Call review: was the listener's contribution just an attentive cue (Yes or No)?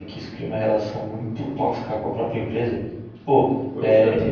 Yes